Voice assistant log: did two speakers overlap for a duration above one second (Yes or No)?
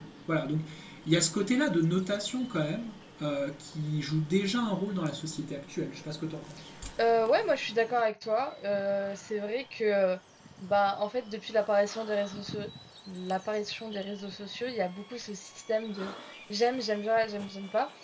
No